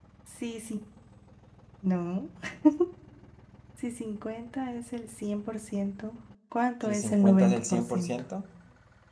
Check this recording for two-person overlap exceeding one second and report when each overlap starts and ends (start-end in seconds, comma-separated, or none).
6.8-8.2